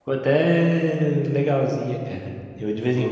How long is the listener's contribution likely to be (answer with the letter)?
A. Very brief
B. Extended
A